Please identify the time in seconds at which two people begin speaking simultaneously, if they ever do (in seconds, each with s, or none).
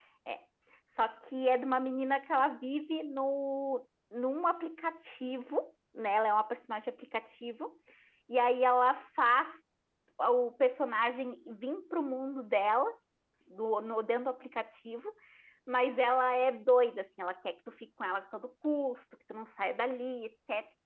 none